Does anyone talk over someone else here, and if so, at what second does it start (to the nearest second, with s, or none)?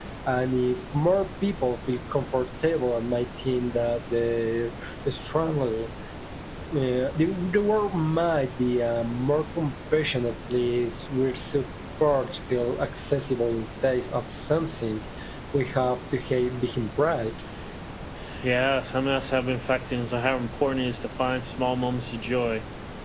none